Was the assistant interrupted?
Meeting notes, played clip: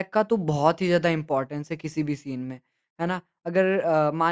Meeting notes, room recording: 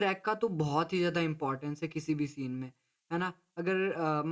No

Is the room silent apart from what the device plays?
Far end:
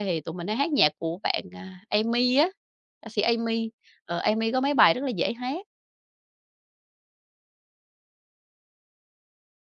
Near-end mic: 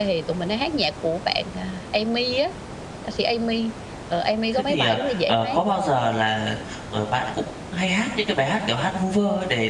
No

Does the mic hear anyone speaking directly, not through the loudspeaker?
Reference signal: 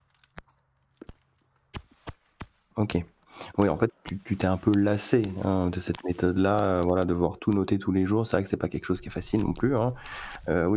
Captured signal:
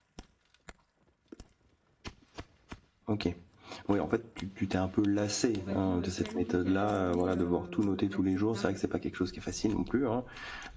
Yes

